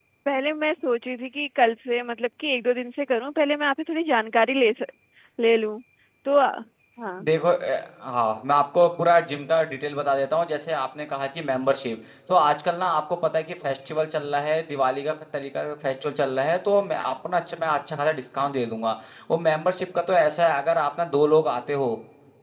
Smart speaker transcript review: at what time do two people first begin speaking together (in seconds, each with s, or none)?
none